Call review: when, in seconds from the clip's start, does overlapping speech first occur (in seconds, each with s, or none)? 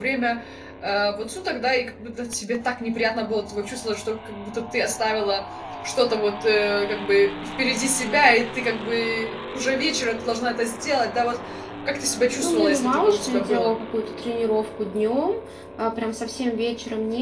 12.4 s